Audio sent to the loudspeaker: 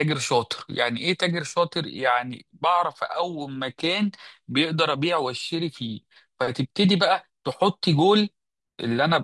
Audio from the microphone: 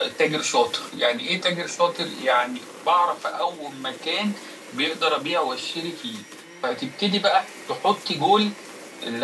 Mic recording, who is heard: echo only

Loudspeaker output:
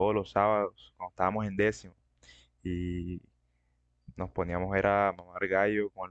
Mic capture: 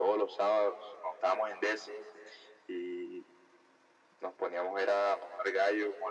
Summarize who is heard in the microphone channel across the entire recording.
echo only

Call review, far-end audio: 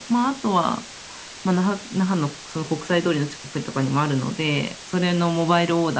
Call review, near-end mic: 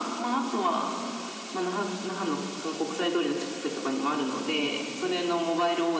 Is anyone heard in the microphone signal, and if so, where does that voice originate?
echo only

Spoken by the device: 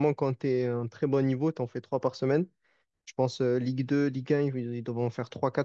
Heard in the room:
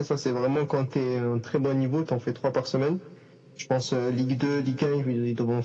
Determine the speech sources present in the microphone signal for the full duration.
echo only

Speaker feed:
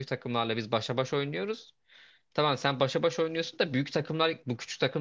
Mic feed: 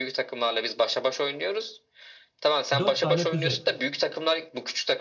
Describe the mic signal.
both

